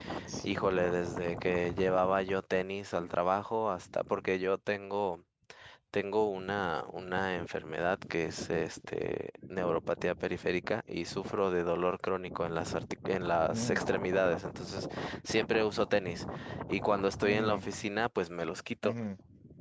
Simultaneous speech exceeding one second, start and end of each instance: none

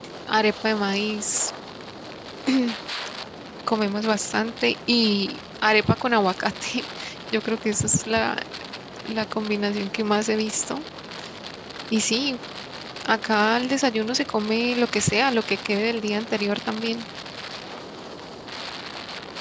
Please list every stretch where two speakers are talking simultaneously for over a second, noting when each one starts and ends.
none

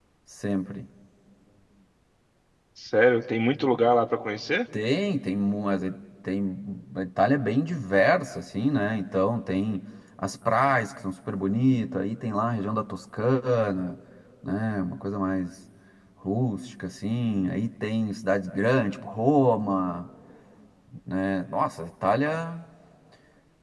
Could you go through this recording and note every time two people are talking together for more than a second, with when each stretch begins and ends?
none

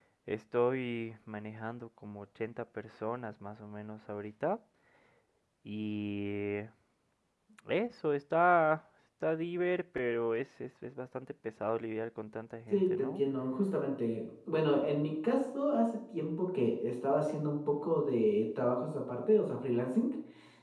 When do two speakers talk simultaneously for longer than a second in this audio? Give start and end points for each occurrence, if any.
none

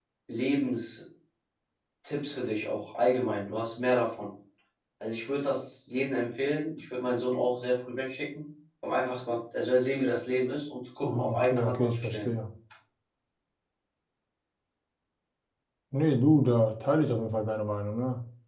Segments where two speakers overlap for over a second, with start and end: 11.0-12.3

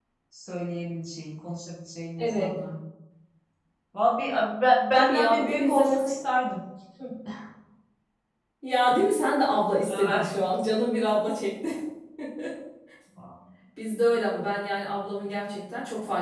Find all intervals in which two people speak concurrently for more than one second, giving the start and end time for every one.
5.0-6.3

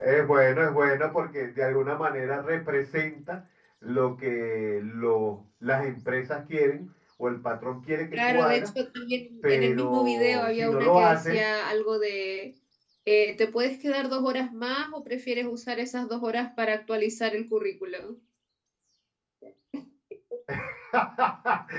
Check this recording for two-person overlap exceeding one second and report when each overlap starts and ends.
9.5-11.4

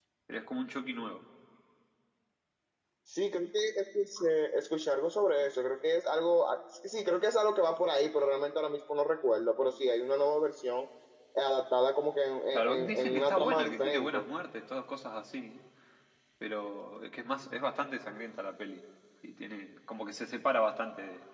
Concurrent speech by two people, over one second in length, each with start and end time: 12.5-14.2

